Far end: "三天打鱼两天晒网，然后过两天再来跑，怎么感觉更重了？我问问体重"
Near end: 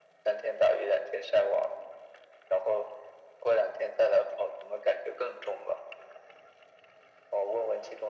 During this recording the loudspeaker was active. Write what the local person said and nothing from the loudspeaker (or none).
none